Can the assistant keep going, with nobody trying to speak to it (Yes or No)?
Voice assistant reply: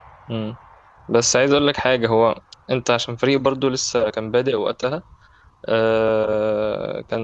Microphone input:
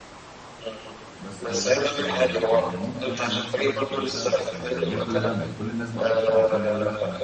No